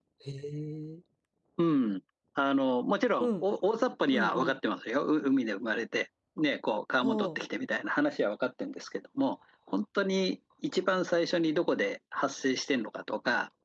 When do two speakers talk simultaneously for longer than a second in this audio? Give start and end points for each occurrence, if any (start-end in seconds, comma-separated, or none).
none